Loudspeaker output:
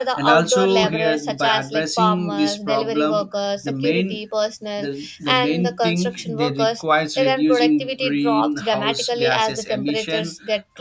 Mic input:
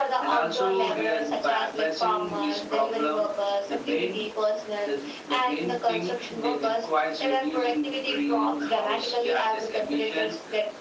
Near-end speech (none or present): none